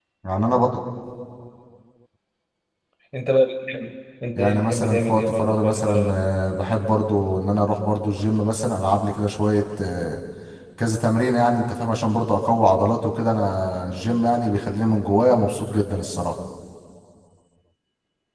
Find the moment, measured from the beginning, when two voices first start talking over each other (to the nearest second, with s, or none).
4 s